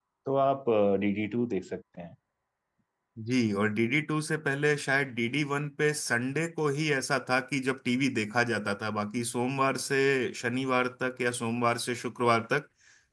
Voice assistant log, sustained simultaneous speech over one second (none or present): none